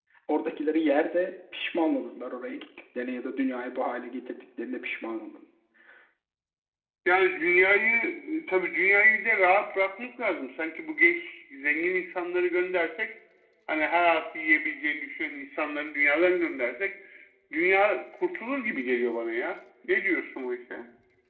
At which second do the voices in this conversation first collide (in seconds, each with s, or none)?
none